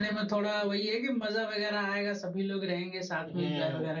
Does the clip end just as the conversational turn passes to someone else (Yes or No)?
Yes